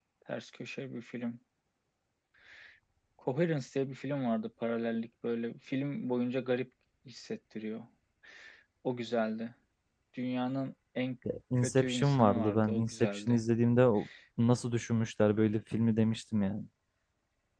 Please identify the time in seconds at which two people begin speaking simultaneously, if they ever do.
11.6 s

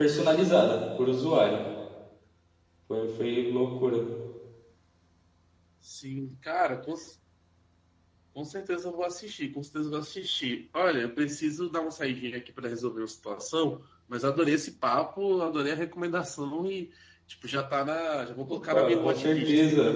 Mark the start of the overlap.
18.4 s

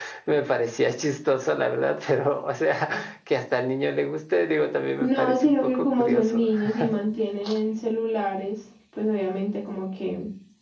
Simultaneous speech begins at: 5.0 s

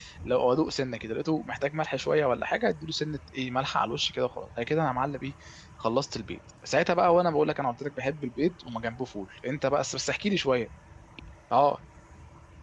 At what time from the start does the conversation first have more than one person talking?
none

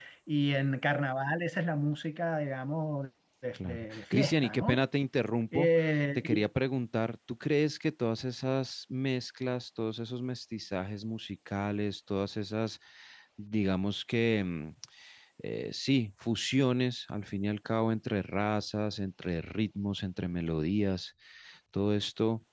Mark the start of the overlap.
3.5 s

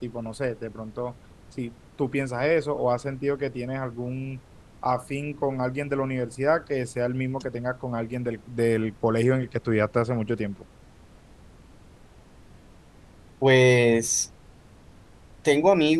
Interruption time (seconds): none

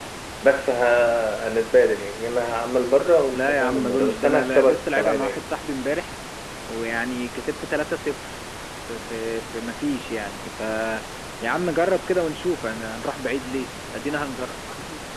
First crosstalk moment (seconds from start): 3.3 s

